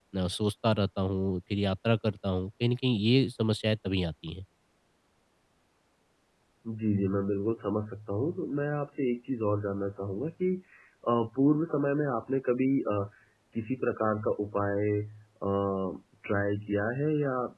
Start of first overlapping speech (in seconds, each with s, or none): none